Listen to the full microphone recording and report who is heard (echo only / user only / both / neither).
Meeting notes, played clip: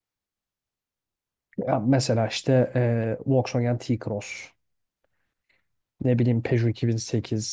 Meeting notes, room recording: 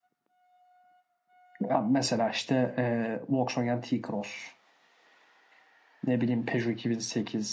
echo only